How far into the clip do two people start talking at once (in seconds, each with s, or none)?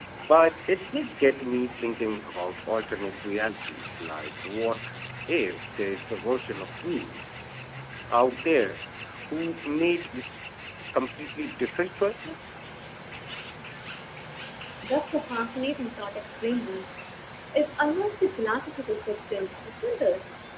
none